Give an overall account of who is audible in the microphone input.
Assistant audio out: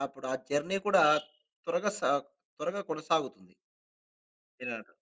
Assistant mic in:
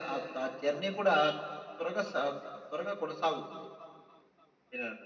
echo only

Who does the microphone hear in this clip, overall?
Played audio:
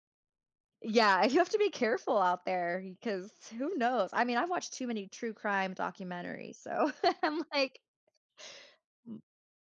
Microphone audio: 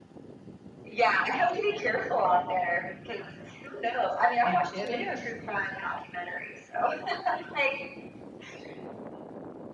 both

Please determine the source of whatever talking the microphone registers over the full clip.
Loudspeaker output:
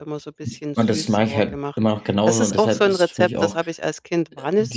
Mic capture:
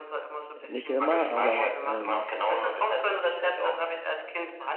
both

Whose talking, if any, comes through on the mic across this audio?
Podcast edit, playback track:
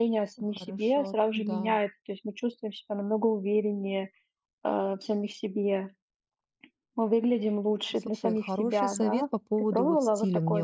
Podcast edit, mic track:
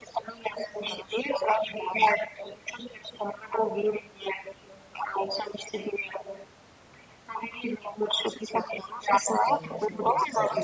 both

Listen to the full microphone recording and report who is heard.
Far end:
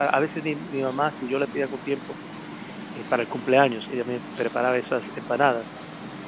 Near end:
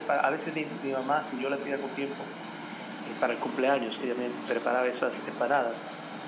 echo only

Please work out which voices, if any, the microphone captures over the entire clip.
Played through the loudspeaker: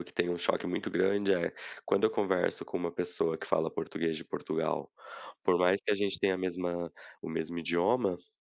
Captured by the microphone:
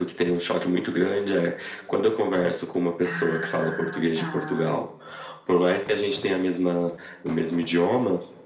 both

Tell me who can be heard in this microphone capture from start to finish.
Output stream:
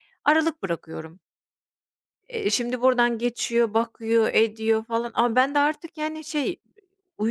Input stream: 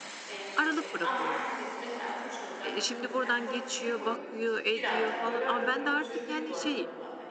both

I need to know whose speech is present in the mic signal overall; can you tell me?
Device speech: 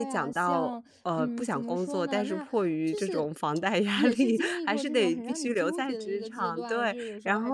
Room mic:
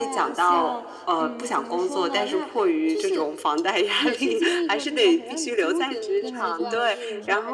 both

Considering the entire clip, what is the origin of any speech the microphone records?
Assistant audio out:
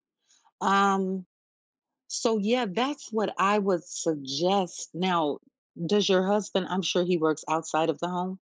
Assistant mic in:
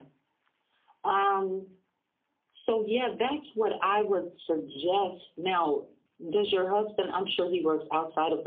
echo only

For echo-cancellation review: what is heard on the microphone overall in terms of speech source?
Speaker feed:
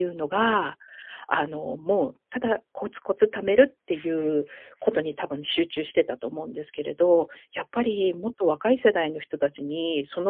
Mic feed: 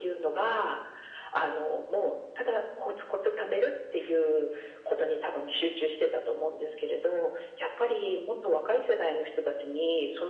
echo only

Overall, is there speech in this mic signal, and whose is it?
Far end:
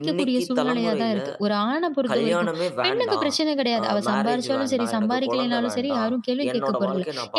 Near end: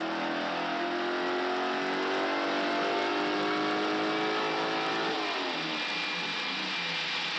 neither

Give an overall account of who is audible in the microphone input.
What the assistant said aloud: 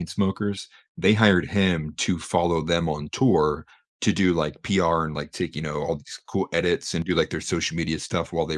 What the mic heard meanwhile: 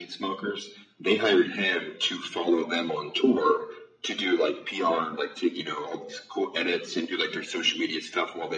echo only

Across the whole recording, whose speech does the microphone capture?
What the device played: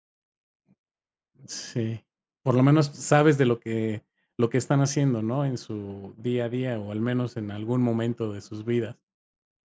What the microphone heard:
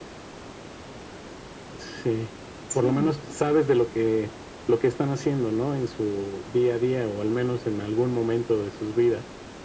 both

